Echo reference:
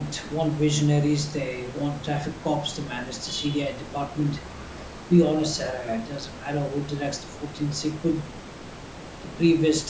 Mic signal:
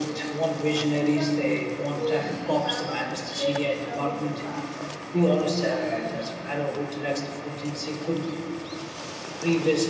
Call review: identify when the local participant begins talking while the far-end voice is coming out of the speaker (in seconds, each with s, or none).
0.9 s